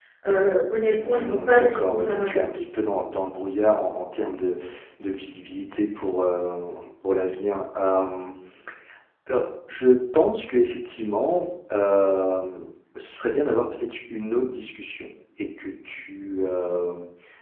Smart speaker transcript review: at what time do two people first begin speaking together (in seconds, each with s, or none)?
0.9 s